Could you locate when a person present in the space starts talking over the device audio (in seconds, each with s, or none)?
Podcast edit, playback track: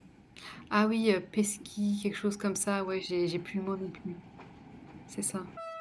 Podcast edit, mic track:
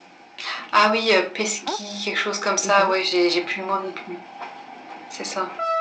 1.6 s